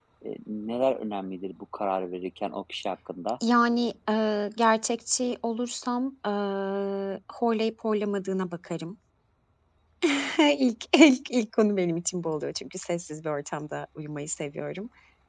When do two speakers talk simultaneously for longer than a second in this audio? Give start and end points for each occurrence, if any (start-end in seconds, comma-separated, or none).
none